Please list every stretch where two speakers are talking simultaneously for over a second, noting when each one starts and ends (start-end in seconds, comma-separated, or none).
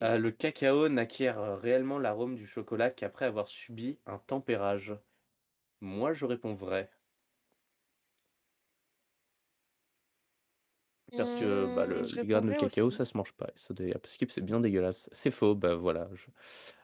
11.2-13.0